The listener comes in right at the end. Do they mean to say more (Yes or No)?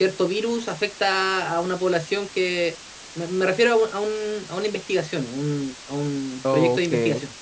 No